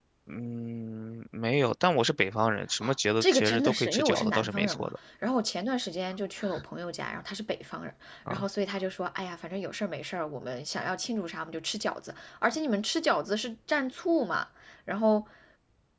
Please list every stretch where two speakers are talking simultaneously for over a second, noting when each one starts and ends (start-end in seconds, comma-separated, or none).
3.2-4.9